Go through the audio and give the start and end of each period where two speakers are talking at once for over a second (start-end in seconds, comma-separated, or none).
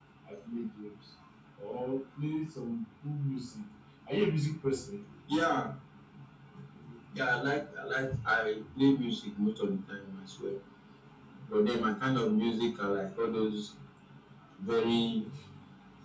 none